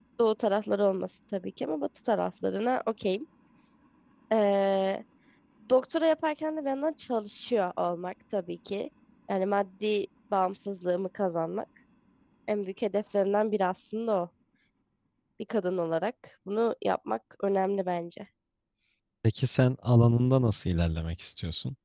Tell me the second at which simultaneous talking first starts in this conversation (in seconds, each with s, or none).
none